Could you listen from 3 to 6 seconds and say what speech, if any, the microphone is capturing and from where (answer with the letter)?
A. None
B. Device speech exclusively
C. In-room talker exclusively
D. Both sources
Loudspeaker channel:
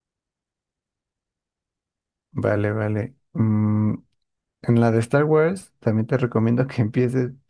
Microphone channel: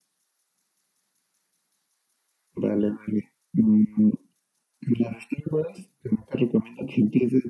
B